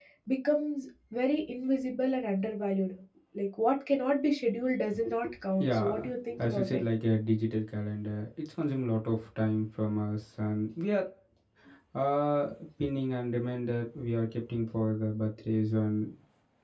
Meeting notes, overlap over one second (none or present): present